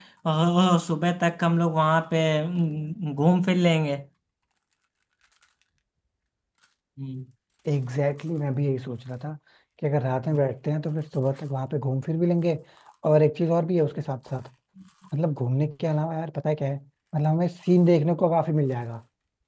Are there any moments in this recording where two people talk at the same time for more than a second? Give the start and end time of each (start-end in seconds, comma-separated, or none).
none